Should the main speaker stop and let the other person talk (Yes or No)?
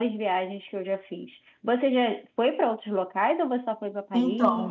Yes